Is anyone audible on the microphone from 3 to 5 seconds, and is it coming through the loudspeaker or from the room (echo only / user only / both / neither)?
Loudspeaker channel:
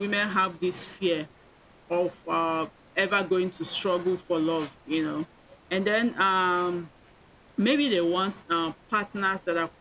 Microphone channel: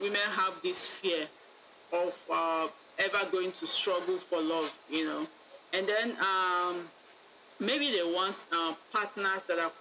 echo only